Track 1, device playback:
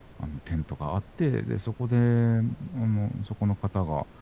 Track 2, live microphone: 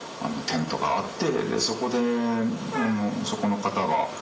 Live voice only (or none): none